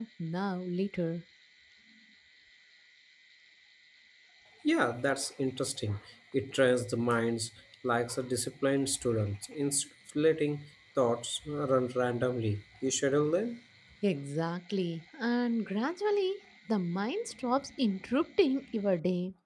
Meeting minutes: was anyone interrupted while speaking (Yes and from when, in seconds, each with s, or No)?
No